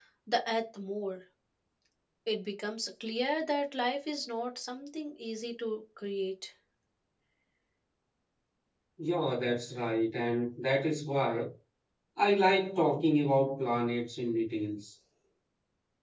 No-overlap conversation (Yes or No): Yes